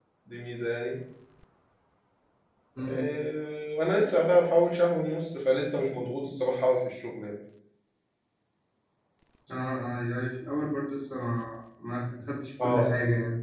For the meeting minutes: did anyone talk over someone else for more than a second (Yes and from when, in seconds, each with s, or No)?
No